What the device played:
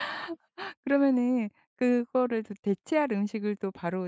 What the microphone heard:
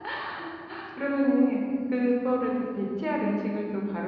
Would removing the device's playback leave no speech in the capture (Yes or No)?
Yes